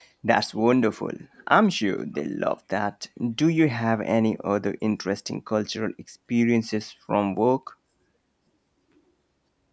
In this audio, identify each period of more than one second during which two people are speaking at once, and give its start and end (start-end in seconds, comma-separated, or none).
none